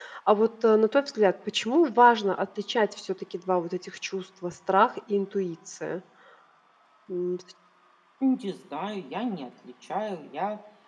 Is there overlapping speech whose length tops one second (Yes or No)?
No